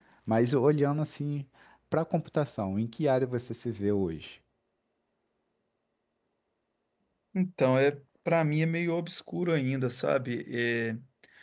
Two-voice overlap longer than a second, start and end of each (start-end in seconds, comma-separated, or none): none